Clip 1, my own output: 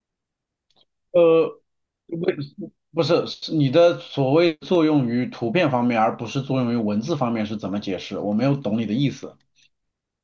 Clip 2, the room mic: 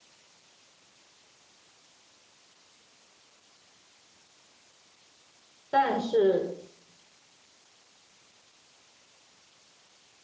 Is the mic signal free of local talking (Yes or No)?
No